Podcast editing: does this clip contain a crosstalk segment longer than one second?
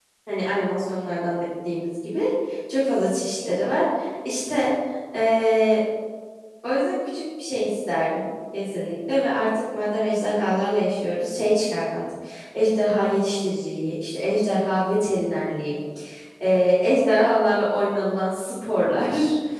No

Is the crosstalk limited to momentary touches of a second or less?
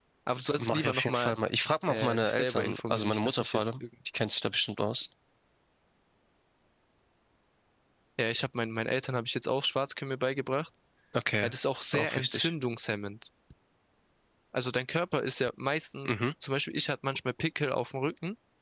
No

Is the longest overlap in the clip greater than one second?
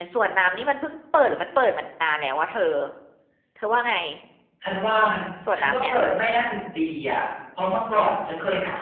No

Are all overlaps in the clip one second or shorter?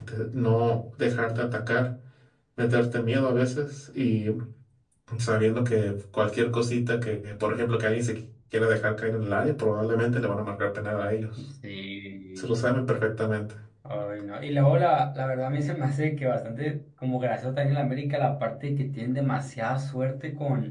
Yes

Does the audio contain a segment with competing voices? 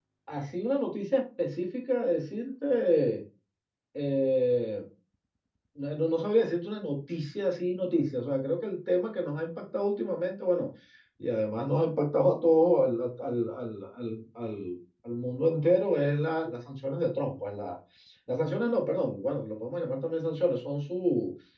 No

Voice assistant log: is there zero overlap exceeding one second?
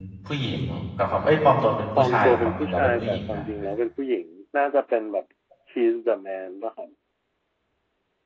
No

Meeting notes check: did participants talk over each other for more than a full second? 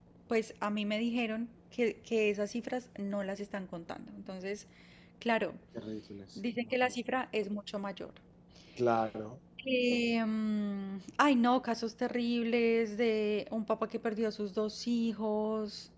No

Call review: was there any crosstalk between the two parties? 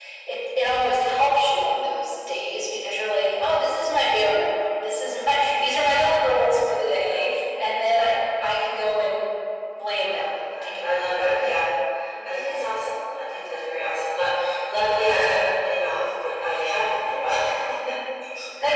Yes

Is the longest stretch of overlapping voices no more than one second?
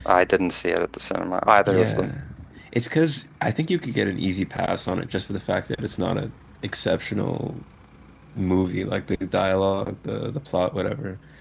Yes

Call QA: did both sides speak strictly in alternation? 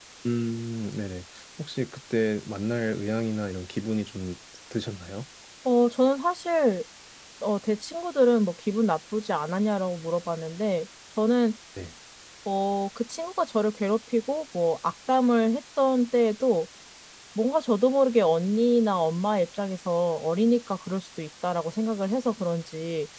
Yes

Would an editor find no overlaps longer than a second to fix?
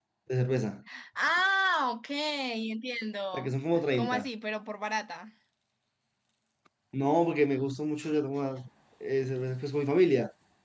Yes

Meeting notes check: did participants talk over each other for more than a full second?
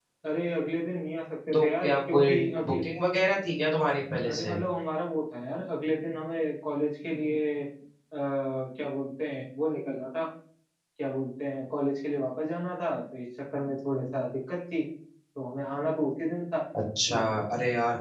Yes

